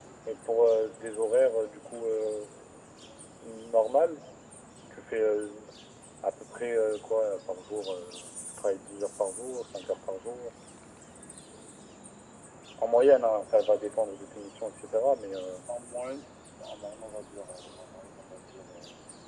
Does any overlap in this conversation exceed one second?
No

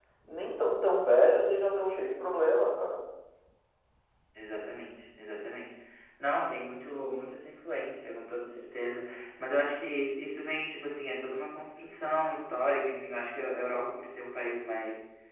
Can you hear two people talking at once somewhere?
No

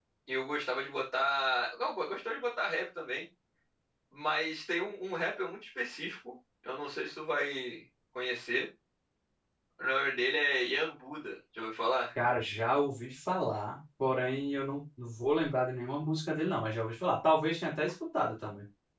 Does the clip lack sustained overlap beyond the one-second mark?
Yes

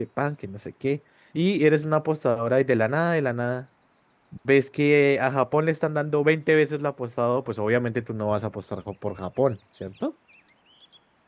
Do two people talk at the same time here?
No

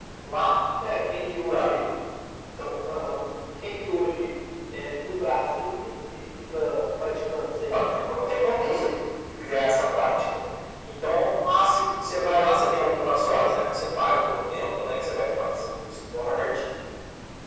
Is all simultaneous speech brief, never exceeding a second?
Yes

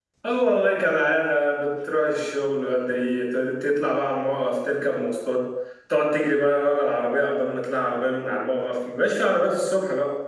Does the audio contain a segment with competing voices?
No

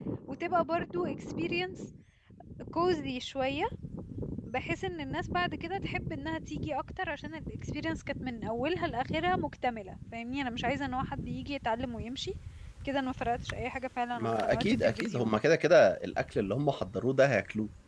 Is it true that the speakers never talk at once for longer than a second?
No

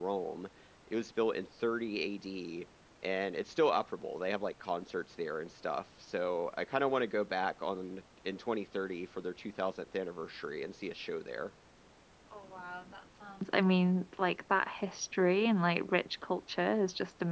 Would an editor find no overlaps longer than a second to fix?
Yes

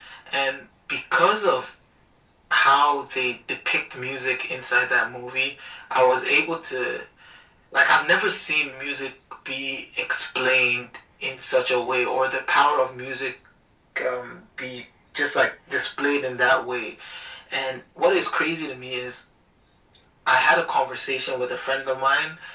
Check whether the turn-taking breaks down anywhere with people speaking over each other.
No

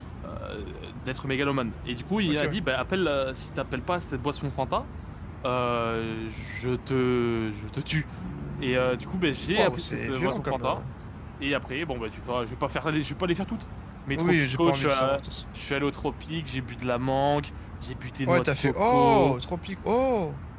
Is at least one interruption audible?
Yes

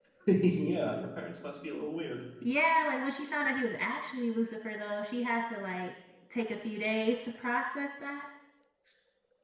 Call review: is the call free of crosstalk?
Yes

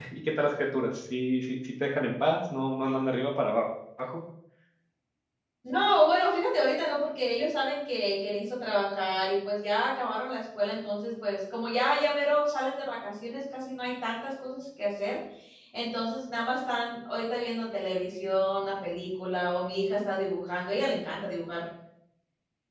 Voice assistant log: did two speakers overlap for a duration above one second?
No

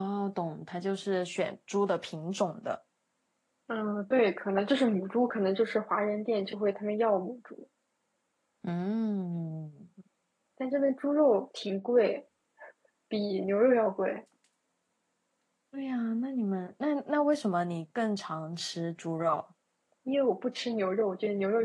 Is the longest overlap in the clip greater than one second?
No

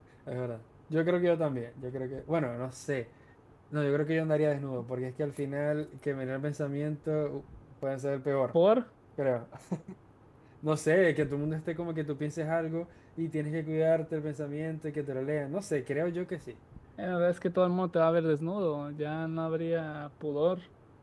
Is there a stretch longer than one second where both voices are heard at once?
No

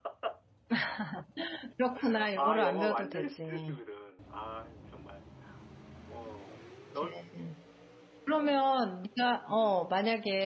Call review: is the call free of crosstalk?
No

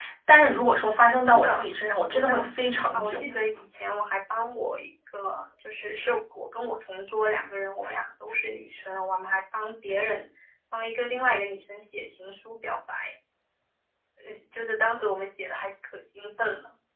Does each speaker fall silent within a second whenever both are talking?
No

